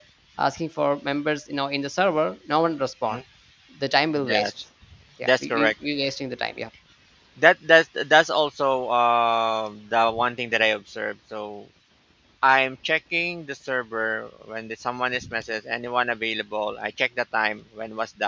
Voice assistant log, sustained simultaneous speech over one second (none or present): none